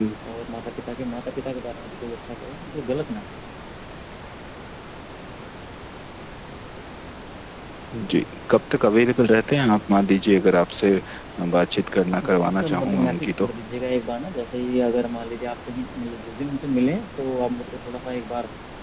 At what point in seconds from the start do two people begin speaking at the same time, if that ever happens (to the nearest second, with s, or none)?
12 s